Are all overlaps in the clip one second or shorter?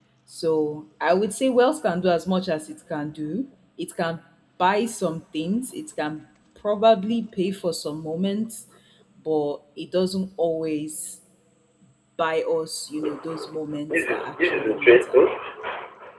No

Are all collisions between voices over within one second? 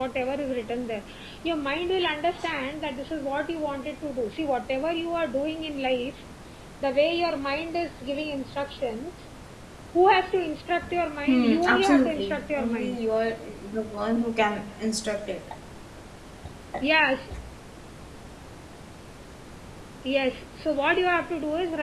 No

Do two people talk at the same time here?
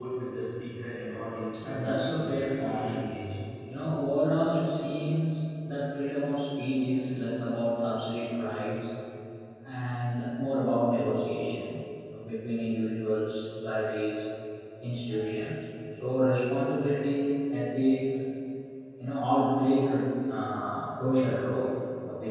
Yes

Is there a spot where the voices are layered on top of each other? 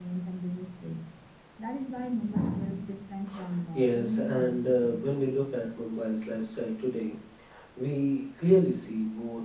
Yes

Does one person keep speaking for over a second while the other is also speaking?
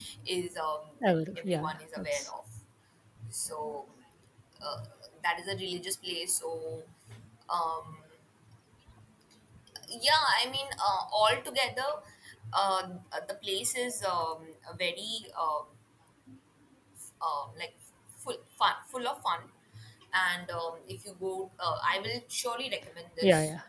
Yes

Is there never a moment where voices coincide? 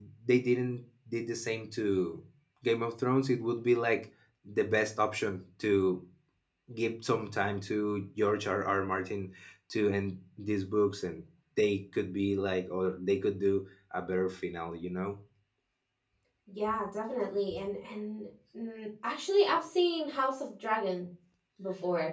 Yes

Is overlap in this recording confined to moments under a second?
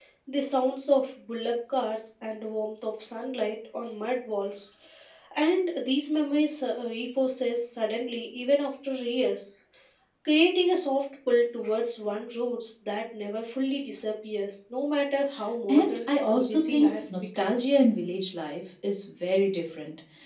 No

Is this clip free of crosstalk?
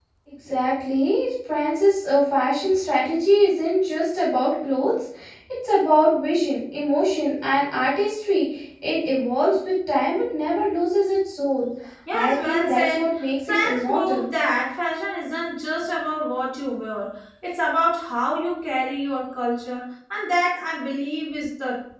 No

